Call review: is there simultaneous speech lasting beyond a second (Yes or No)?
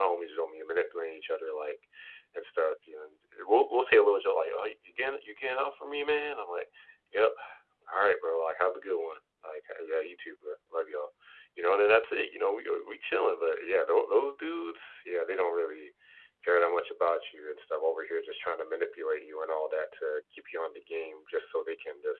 No